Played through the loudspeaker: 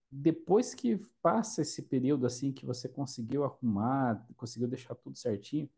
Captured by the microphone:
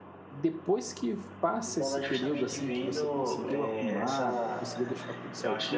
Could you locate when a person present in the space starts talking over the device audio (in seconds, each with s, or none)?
1.6 s